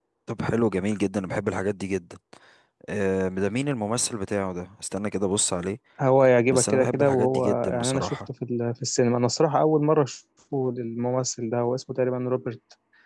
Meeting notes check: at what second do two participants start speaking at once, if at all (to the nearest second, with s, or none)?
7 s